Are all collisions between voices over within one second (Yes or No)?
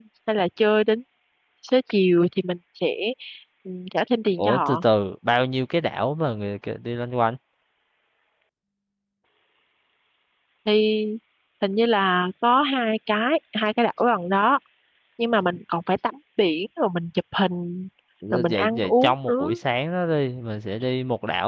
No